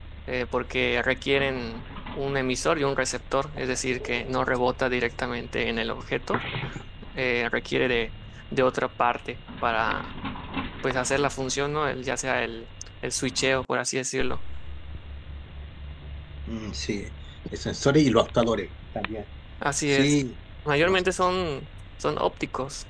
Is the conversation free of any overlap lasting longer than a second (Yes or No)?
Yes